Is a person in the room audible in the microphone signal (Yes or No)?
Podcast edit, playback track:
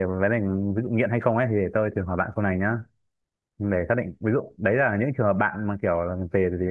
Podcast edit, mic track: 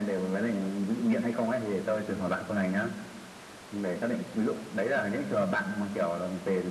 No